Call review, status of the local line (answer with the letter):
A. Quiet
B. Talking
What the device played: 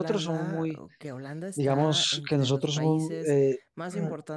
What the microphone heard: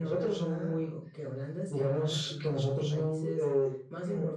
A